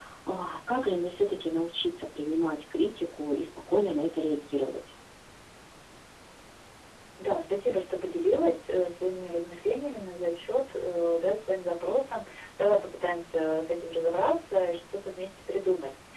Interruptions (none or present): none